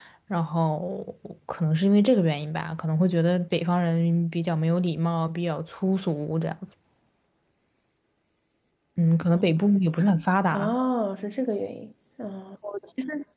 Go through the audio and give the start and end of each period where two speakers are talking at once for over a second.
none

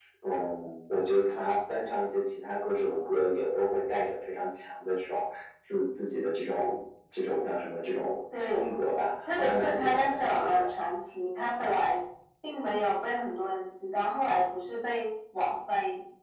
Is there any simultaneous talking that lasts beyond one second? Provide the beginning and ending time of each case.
9.2-10.7

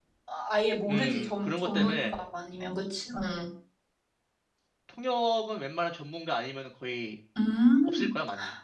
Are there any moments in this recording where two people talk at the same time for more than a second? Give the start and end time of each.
0.9-2.2

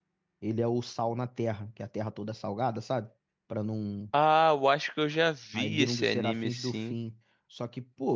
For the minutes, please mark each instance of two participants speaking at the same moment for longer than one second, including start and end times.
5.5-7.0

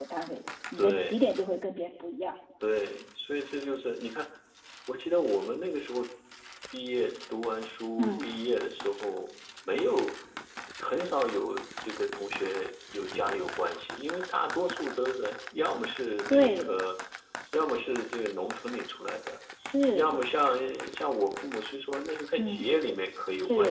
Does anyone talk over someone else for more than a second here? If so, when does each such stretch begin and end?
none

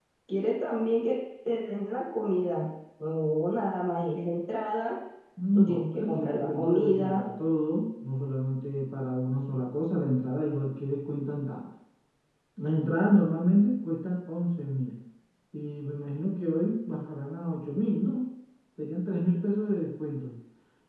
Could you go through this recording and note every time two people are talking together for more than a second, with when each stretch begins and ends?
5.6-7.3

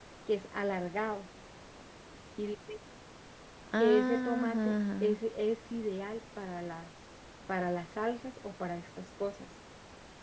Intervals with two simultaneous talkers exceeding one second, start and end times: 3.8-5.2

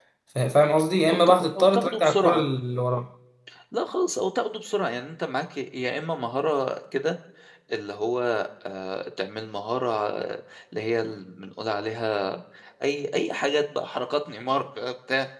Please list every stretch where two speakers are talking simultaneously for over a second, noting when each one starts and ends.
1.1-2.5

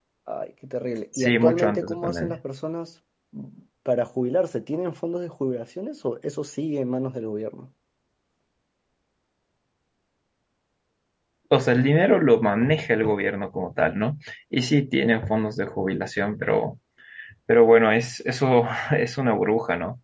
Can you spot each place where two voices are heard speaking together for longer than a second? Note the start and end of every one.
1.2-2.4

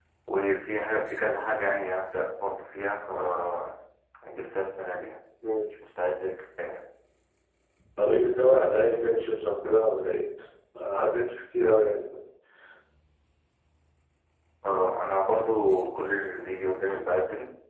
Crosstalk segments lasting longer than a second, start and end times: none

